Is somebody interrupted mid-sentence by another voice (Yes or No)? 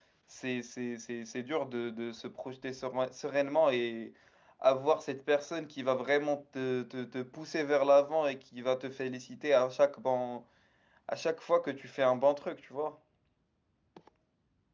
No